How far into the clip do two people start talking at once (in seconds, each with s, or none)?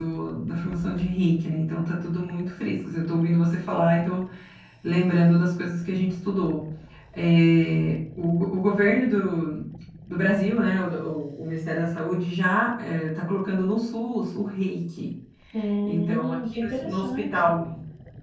15.8 s